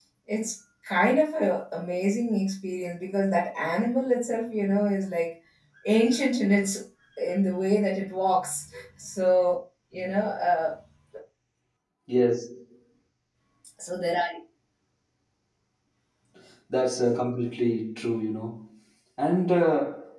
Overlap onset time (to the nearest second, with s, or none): none